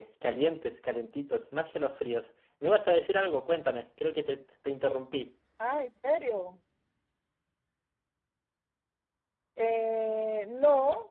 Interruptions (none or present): none